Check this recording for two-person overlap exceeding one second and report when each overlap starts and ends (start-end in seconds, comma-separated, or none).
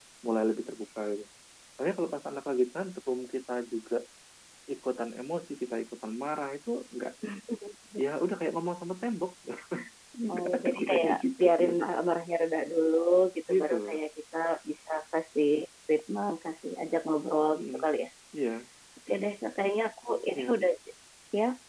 10.3-11.7